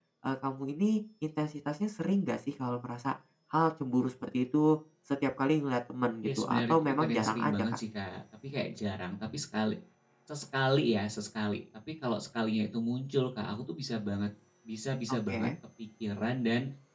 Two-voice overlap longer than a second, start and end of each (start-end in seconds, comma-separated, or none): 6.2-7.8